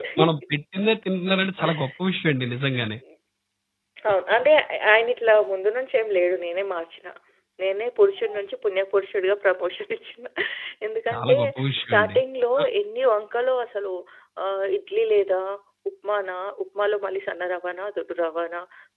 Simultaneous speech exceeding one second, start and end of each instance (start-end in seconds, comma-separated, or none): none